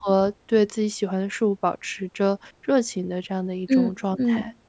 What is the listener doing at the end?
taking over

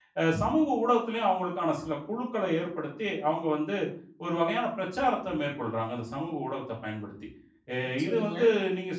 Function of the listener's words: listening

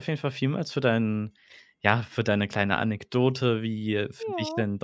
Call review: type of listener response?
listening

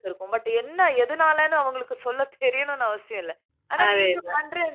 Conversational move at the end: listening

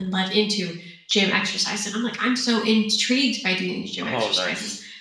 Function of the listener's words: listening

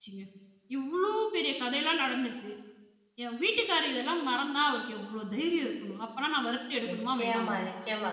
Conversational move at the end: taking over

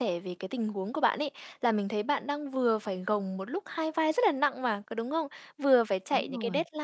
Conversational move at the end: listening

